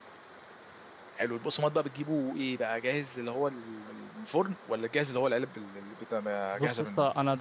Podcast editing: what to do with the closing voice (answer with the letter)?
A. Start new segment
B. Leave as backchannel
A